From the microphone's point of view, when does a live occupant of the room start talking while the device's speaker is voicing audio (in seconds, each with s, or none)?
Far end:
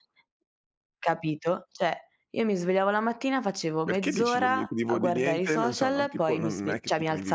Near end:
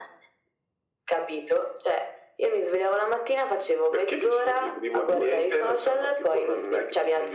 5.1 s